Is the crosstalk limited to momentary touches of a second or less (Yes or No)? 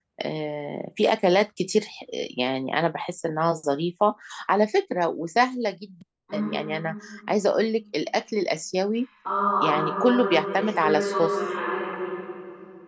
No